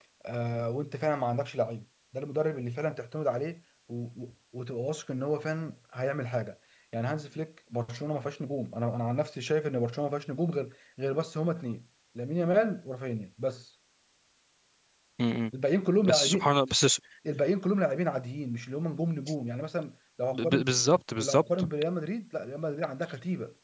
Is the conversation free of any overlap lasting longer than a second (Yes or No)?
Yes